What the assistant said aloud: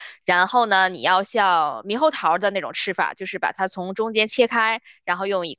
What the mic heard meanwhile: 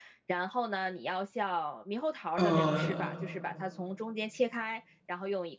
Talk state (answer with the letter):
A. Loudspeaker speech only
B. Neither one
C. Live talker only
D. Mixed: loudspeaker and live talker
D